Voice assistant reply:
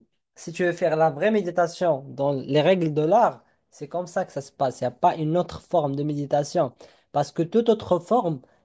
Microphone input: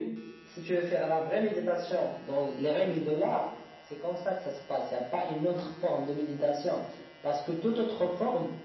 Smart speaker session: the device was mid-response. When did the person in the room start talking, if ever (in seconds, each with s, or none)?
none